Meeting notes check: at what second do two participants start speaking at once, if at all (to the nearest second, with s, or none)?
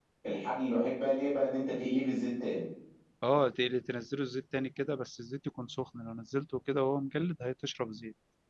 none